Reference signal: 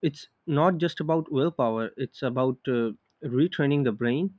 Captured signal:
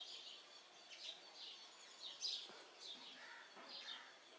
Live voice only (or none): none